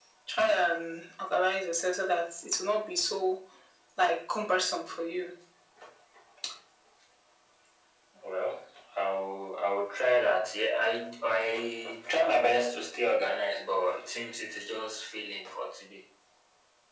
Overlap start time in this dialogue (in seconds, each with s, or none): none